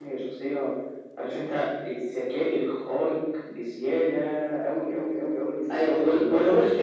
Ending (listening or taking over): taking over